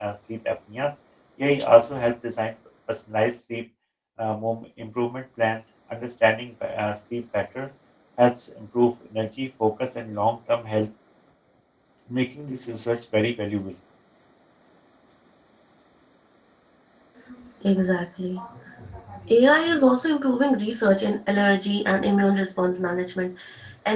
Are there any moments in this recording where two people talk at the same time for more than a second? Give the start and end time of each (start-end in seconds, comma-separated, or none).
none